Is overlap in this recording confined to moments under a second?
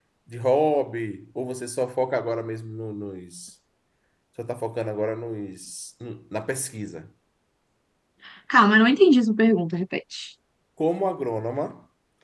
Yes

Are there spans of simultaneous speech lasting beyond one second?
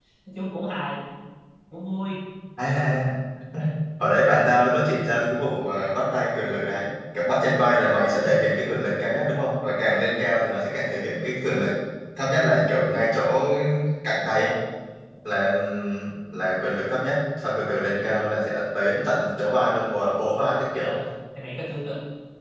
No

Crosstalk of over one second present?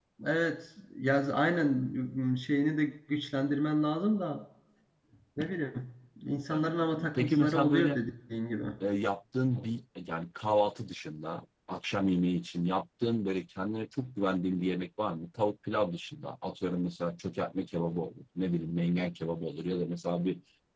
Yes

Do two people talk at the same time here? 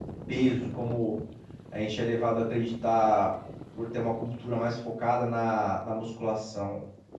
No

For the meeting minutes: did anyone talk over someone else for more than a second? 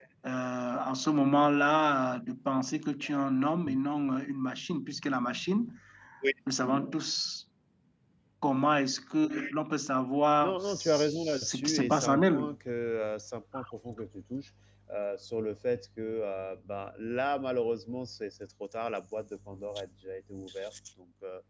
Yes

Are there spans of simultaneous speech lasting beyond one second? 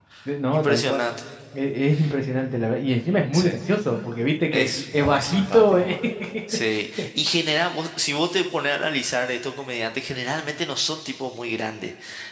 Yes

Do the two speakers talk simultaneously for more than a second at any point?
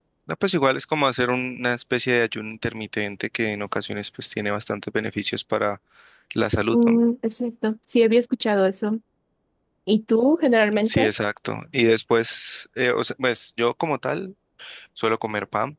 No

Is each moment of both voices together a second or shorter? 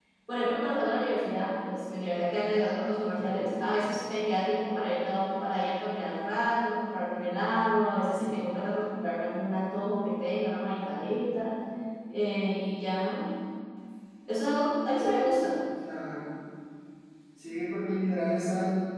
Yes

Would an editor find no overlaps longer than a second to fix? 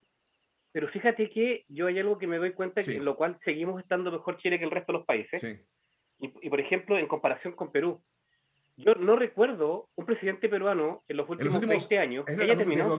No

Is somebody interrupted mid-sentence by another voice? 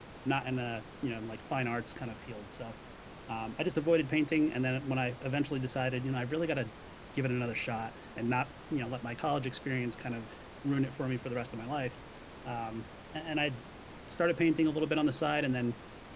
No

